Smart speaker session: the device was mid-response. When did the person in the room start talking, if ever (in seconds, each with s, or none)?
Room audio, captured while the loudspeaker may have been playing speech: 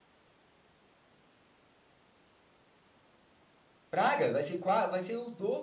3.9 s